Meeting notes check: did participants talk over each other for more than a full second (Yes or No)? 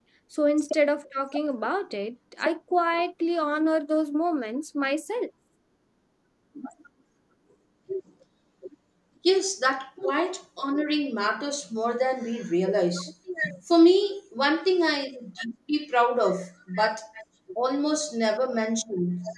No